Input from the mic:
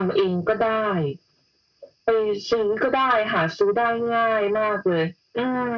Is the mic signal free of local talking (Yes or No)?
Yes